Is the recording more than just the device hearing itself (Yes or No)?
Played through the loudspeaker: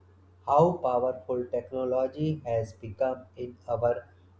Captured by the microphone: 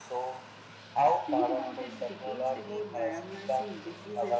Yes